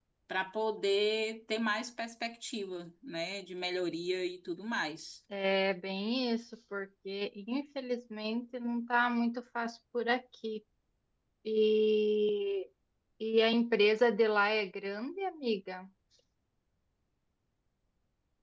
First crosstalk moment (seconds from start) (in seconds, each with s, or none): none